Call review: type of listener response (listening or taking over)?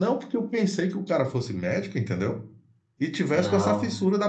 listening